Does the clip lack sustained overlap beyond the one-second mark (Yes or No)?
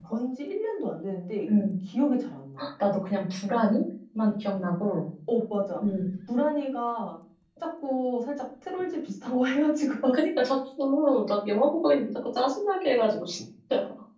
Yes